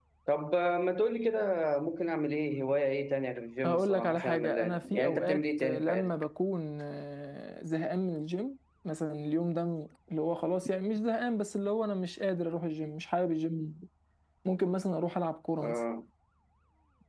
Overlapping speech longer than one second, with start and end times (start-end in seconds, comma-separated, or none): 3.6-6.1